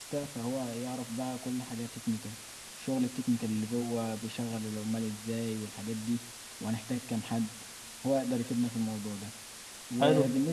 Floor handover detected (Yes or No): No